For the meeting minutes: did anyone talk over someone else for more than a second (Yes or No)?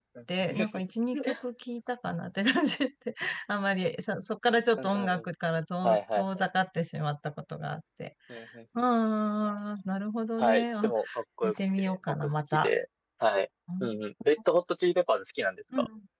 Yes